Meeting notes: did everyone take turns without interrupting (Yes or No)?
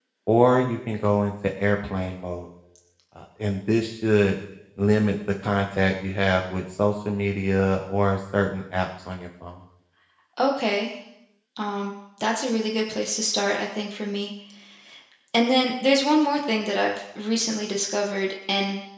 Yes